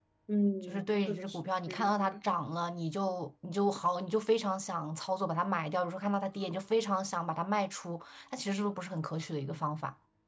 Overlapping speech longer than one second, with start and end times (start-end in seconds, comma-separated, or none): 0.6-2.2